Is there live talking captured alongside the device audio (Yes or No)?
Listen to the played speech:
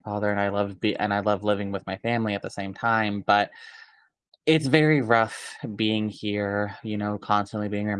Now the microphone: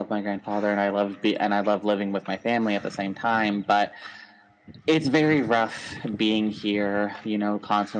No